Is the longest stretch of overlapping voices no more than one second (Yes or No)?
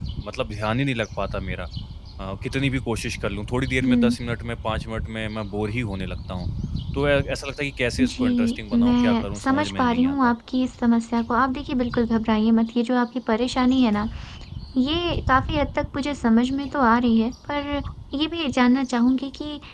No